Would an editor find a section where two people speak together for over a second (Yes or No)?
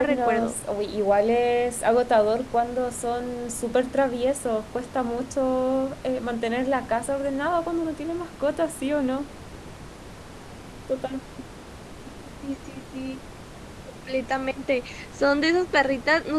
No